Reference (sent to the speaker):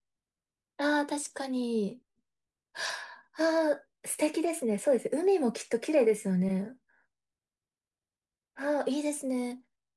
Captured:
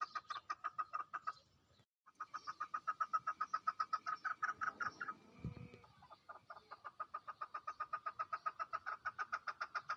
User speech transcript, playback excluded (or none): none